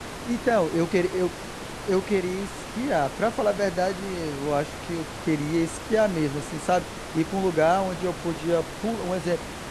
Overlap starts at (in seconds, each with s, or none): none